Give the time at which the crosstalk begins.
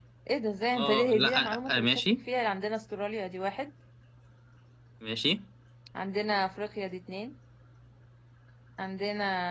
0.7 s

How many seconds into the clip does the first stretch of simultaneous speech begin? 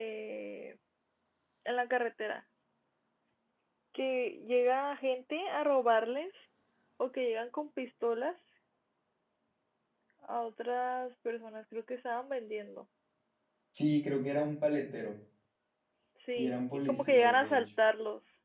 16.4 s

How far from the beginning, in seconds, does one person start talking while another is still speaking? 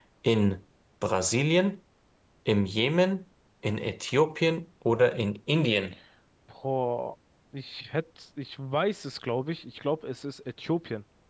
none

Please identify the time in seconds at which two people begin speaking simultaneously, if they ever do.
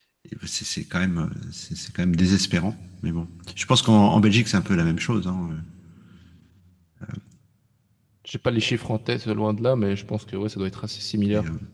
none

